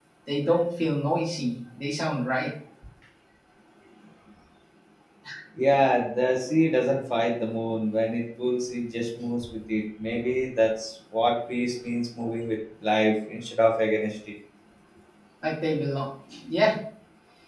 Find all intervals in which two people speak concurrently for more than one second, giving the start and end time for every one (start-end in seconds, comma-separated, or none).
none